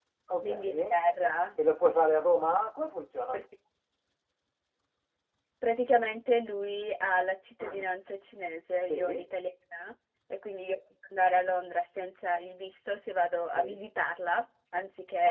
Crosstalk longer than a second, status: none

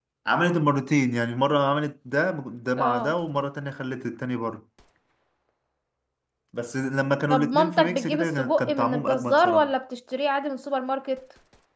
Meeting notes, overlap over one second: present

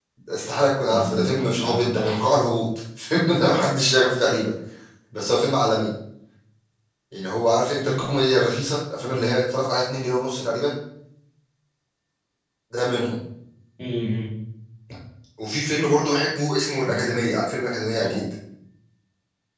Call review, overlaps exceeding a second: present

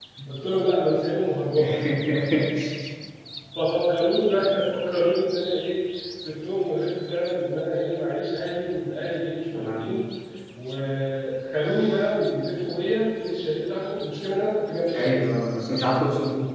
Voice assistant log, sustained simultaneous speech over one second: none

